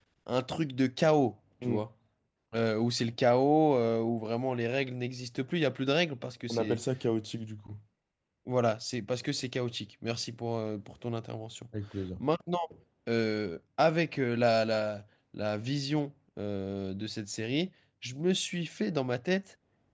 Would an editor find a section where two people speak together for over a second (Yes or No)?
No